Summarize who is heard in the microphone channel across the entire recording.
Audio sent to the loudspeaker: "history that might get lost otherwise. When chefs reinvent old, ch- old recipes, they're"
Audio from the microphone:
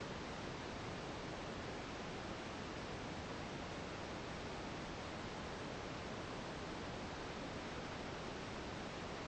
neither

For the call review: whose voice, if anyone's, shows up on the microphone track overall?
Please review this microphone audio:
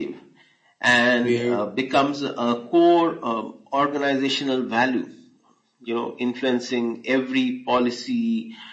both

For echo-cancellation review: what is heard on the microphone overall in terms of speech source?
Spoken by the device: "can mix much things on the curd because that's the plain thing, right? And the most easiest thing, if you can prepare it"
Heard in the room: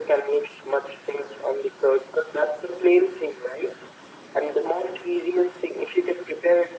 echo only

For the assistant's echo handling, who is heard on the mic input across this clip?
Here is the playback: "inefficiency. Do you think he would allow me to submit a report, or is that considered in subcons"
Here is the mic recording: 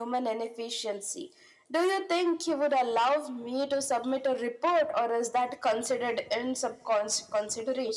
echo only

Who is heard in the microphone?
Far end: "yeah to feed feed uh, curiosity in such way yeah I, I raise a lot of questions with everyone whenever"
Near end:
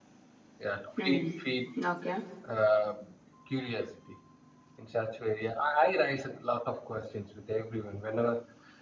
both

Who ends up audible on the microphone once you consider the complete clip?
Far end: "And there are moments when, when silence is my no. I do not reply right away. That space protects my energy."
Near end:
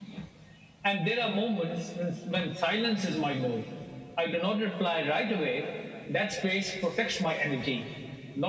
echo only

